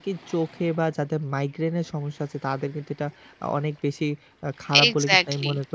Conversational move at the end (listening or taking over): listening